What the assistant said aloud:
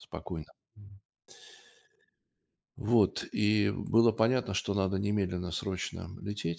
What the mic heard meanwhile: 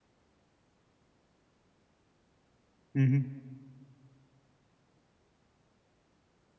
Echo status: none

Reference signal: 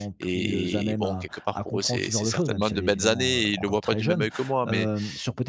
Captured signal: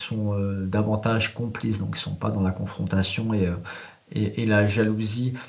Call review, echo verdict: none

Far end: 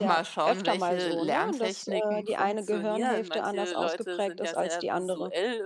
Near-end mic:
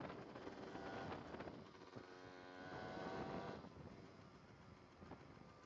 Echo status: none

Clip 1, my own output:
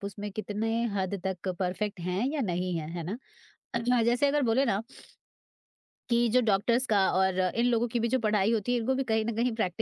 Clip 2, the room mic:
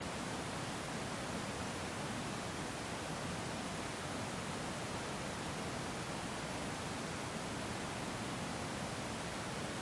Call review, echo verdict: none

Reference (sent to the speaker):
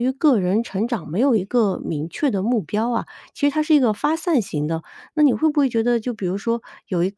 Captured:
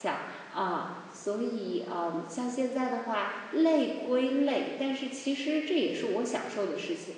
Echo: none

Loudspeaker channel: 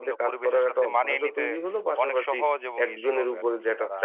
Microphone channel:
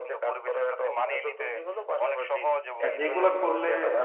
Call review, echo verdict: present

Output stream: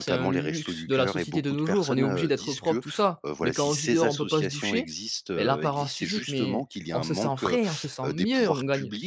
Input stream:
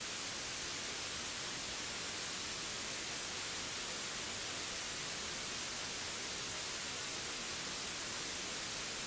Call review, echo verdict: none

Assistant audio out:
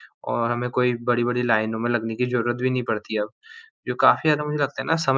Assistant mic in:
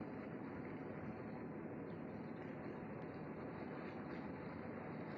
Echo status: none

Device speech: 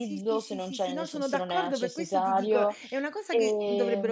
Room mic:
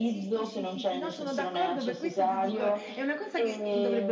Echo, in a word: present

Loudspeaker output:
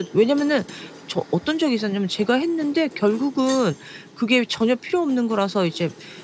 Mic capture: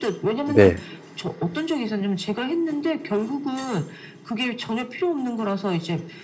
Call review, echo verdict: present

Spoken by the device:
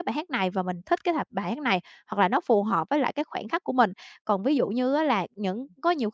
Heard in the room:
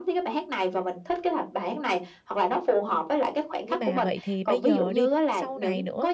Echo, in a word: present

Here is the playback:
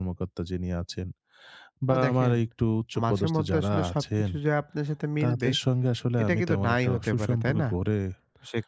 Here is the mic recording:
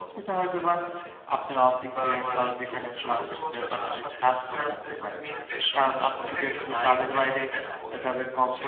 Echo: present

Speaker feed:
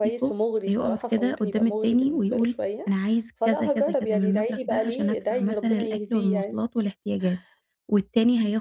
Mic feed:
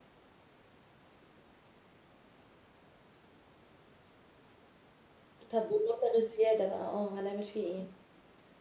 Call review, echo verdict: none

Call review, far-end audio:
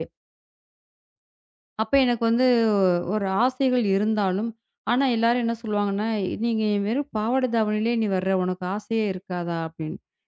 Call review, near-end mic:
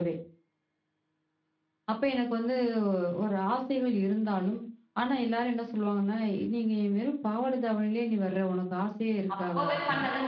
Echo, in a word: present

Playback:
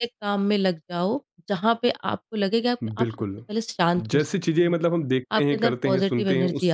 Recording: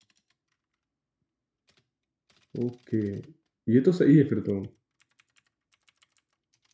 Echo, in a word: none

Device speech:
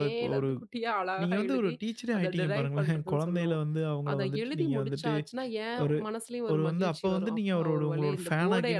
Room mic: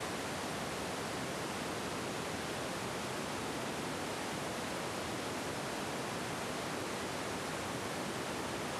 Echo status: none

